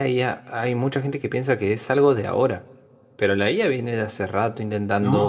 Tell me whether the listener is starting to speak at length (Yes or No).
No